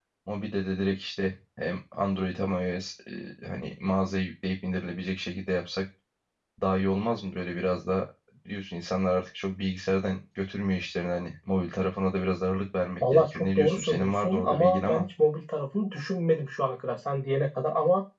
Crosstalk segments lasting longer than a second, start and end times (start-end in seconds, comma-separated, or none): 13.1-15.1